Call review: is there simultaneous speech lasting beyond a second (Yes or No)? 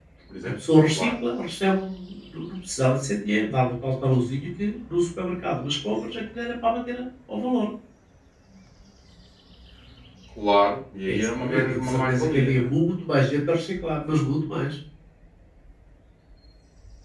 Yes